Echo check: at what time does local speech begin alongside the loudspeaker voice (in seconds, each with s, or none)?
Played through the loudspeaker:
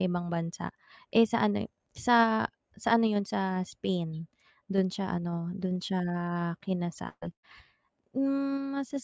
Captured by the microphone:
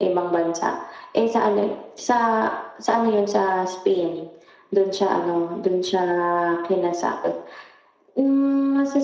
none